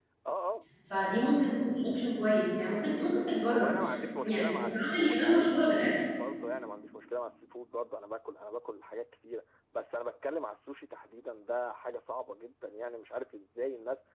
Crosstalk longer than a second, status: present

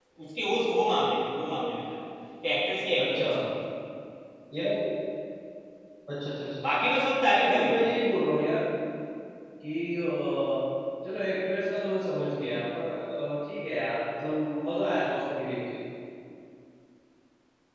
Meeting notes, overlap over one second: none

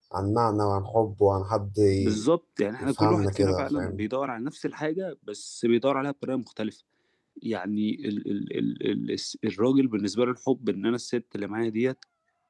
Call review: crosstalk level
present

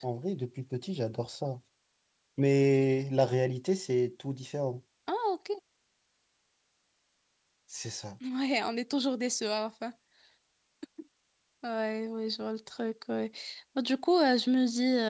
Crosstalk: none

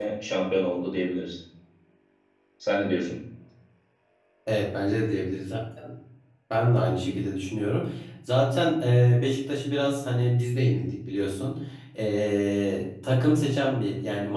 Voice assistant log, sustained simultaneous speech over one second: none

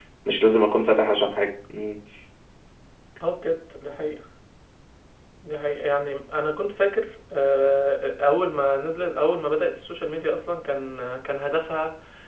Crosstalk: none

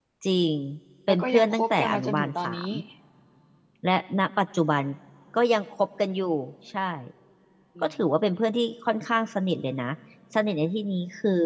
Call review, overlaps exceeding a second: present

